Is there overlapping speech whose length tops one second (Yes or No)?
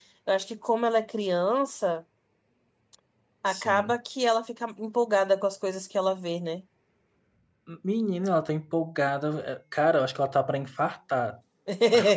No